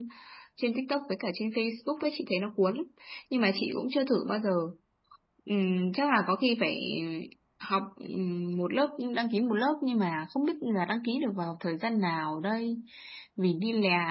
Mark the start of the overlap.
none

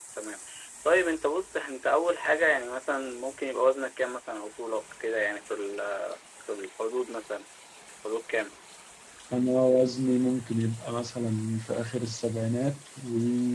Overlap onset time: none

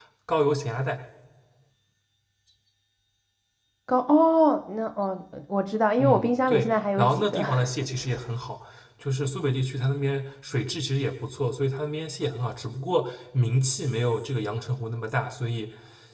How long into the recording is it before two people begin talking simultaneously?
6.0 s

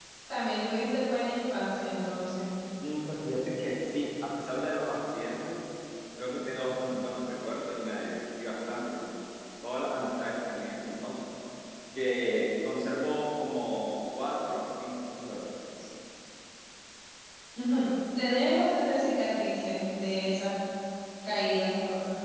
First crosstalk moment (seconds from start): none

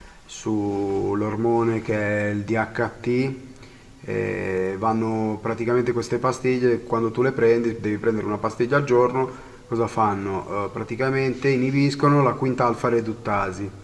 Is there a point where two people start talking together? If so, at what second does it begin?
none

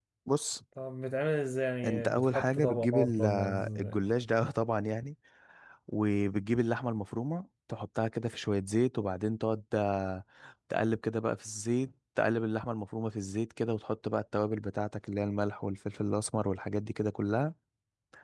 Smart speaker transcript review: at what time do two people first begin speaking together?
1.8 s

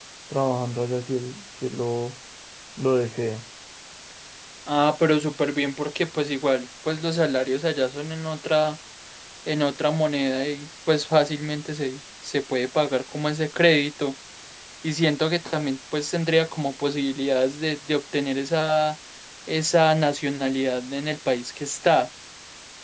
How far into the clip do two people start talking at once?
none

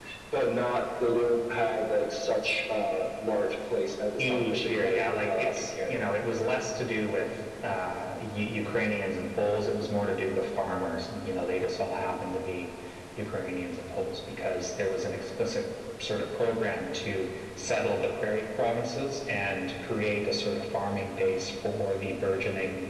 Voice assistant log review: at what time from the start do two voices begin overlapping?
4.2 s

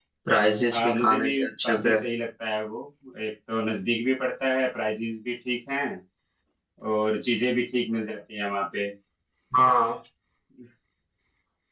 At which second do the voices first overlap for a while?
0.7 s

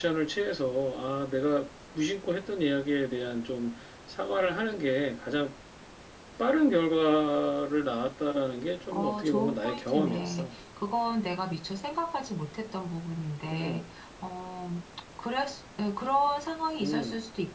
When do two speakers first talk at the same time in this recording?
8.9 s

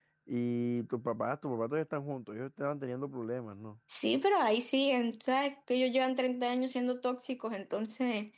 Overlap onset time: none

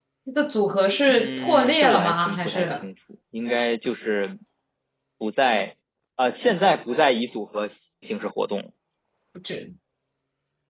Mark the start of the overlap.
1.1 s

